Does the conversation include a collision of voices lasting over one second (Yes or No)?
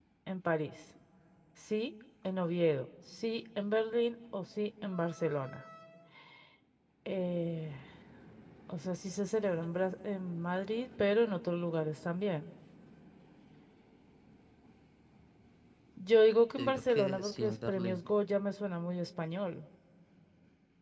Yes